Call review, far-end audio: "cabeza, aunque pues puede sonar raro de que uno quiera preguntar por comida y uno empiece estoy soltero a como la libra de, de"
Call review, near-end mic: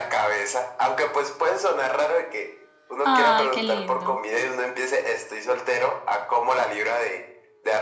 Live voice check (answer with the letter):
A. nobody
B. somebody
B